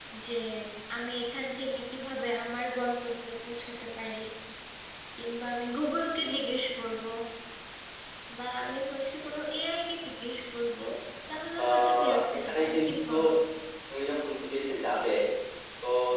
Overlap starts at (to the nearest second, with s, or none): 12 s